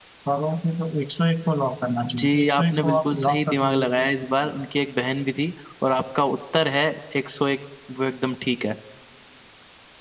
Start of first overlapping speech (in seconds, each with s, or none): 2.0 s